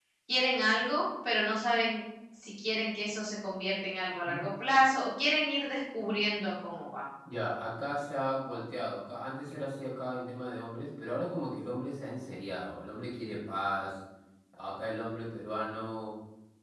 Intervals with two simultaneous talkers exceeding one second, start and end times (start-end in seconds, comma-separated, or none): none